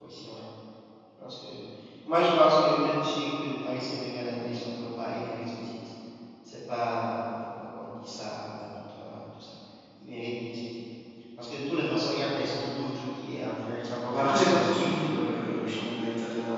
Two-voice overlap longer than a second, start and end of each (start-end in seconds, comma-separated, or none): 14.1-15.6